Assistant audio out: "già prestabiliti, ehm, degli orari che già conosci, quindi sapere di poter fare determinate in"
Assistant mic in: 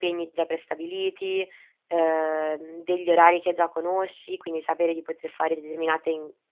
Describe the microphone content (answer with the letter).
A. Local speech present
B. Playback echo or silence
B